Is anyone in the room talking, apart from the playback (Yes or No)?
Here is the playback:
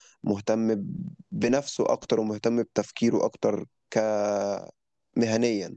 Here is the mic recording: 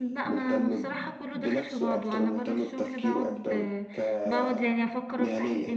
Yes